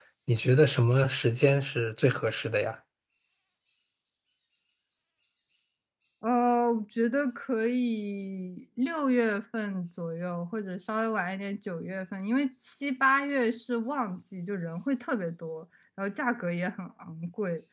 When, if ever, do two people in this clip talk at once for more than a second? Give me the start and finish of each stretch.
none

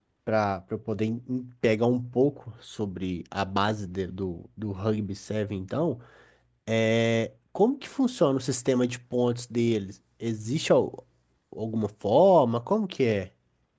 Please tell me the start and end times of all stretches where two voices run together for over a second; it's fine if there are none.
none

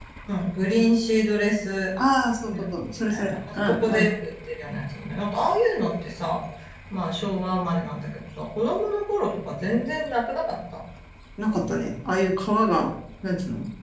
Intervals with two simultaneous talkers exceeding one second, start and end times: 2.5-4.1

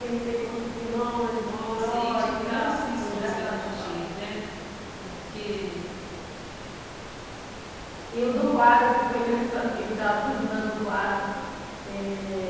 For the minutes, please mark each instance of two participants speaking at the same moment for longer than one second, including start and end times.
1.4-3.9

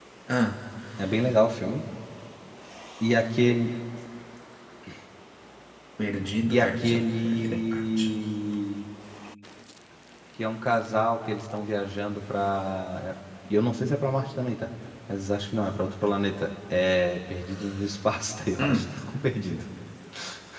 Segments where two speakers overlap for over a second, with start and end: 6.5-8.0

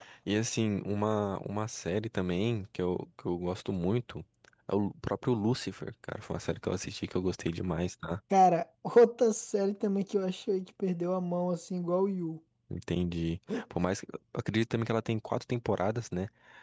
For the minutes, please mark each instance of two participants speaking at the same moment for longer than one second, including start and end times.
none

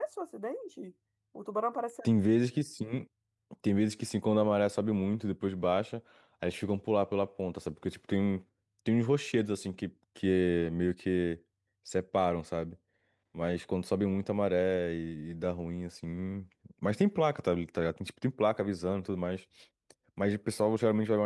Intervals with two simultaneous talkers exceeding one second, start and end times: none

